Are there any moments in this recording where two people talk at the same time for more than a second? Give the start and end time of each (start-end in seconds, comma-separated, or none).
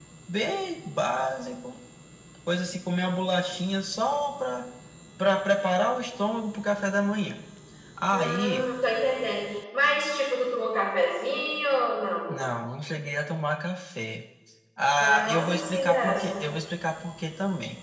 15.0-16.4